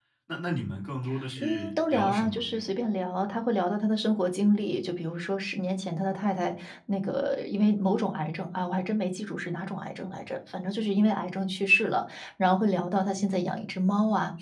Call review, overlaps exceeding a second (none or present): present